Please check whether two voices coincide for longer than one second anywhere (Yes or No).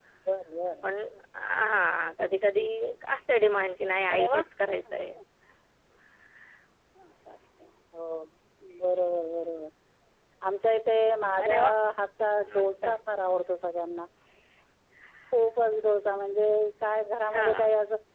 No